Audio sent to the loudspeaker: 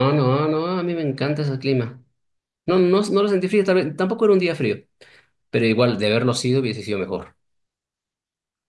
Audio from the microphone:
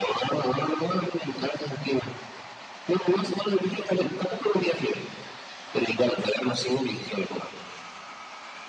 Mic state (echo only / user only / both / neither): echo only